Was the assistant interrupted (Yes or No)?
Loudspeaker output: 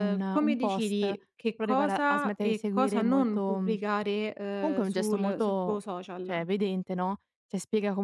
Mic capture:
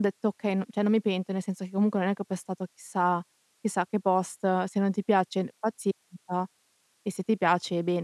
Yes